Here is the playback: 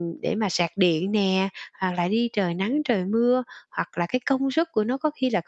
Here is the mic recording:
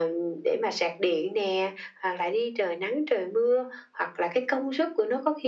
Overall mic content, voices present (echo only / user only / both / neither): echo only